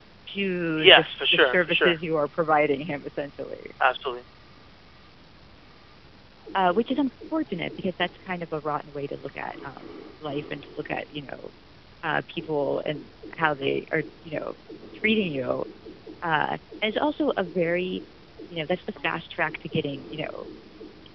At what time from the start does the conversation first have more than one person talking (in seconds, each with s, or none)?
0.8 s